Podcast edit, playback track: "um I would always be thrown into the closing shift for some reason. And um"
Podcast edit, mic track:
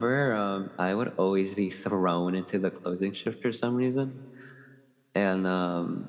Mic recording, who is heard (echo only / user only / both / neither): echo only